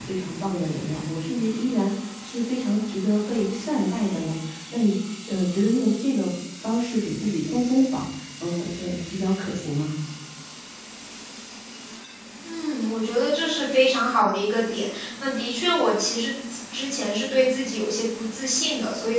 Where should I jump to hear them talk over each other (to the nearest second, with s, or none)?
none